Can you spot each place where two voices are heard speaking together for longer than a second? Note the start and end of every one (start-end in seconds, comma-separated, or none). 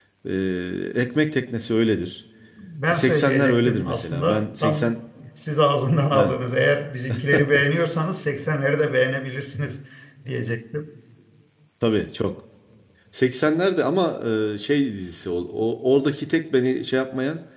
2.9-4.9